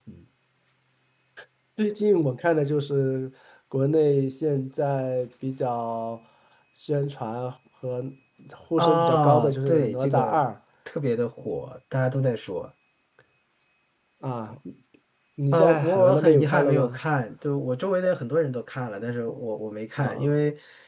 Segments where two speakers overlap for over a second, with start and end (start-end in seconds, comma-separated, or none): 8.8-10.4, 15.5-17.0